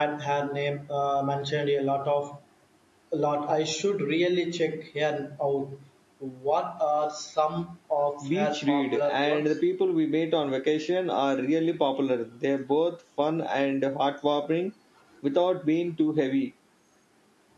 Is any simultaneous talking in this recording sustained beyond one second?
Yes, from 8.2 s

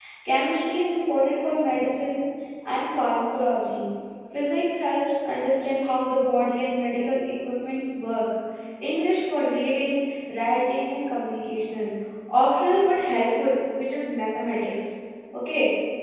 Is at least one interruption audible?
No

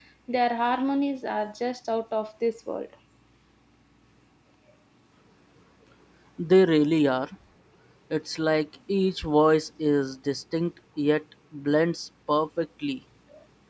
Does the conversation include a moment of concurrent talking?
No

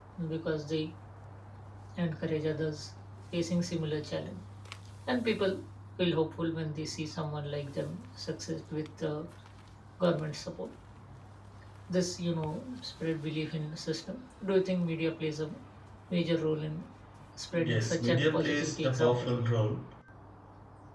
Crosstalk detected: Yes, from 17.5 s

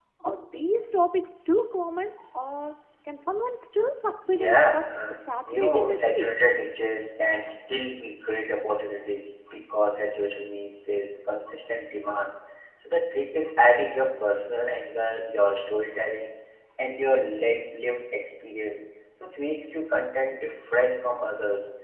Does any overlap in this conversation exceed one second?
Yes, from 4.2 s

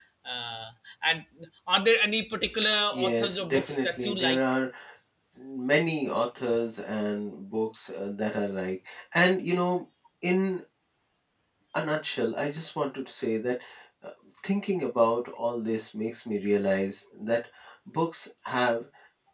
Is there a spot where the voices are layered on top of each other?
Yes, from 2.9 s

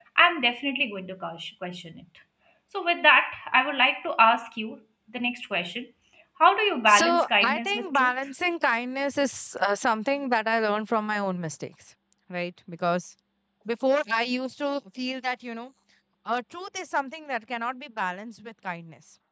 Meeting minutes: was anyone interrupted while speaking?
Yes, from 6.9 s

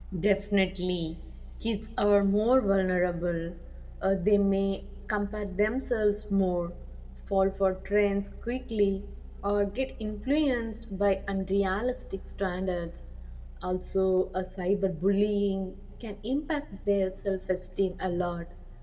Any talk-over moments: No

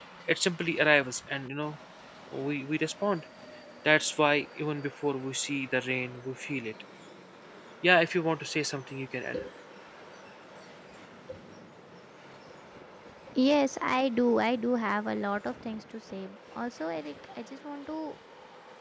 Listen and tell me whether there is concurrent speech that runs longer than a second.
No

